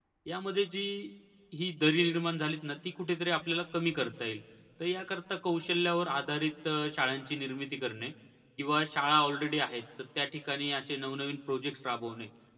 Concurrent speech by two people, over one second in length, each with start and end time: none

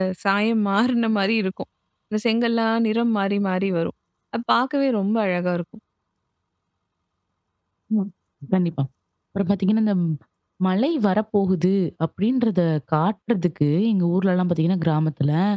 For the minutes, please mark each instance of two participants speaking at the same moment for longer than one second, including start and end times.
none

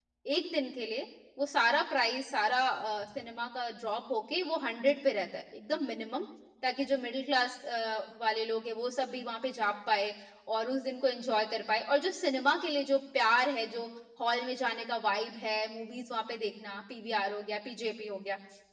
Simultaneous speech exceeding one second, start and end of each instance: none

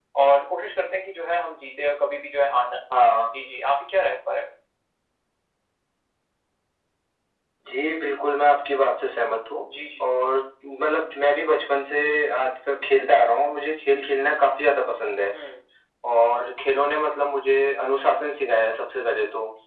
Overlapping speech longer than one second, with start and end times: none

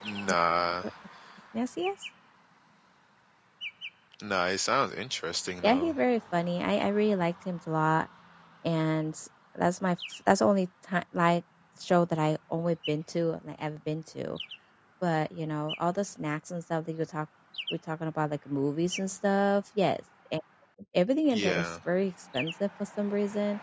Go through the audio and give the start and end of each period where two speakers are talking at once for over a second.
none

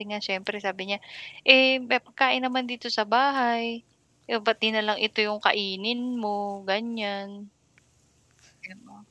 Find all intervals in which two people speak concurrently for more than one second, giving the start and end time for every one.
none

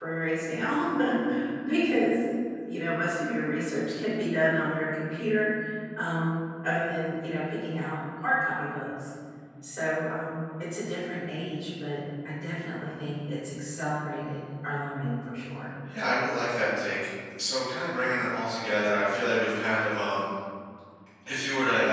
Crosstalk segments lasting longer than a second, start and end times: none

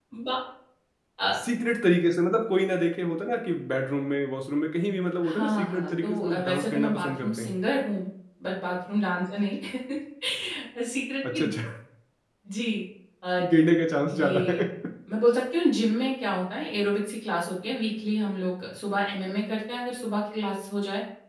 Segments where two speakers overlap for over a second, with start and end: 5.2-7.5

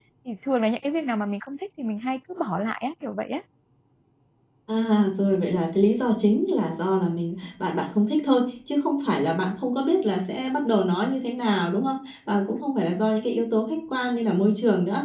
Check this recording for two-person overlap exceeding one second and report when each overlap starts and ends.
none

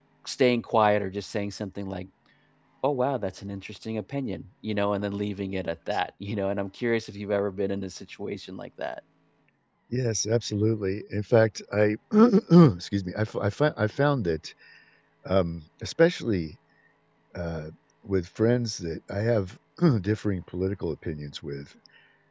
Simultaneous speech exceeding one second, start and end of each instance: none

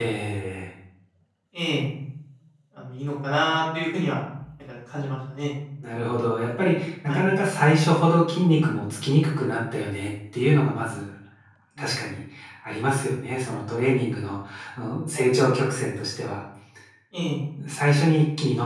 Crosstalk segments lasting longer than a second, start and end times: none

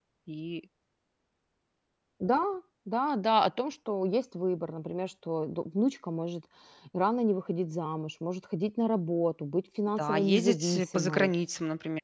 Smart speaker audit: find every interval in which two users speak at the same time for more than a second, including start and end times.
10.0-11.3

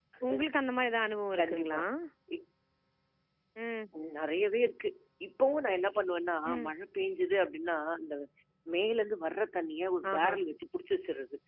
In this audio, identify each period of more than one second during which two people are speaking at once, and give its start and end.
none

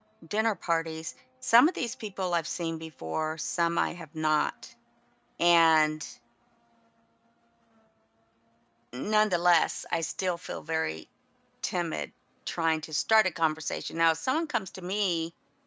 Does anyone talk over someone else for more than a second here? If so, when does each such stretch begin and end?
none

